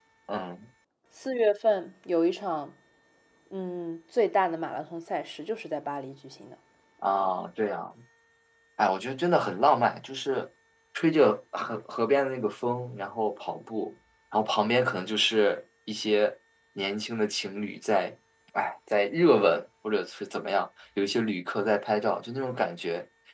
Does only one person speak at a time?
Yes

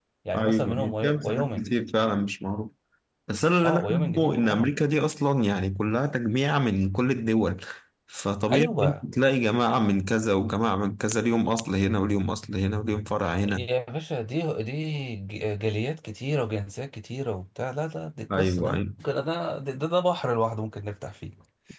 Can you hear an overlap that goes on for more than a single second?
Yes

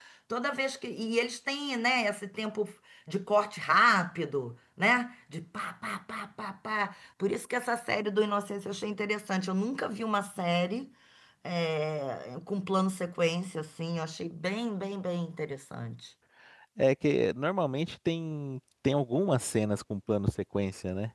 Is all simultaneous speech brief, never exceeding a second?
Yes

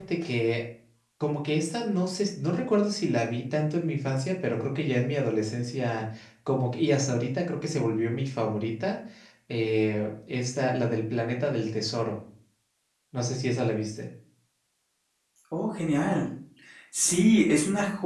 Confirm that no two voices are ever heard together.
Yes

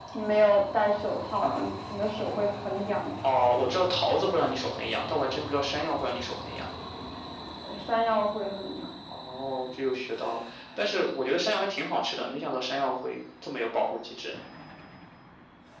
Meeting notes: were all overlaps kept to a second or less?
Yes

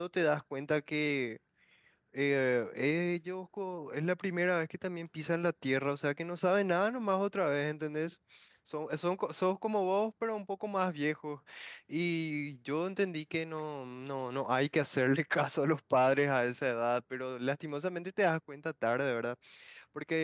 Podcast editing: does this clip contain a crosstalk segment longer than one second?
No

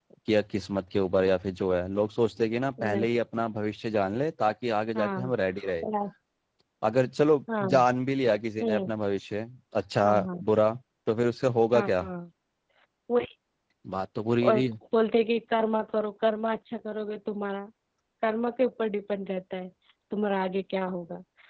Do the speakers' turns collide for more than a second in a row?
No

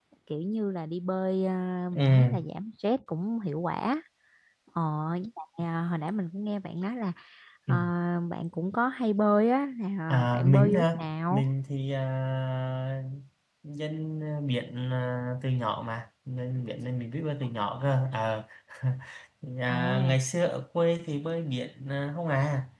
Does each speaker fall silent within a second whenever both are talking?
No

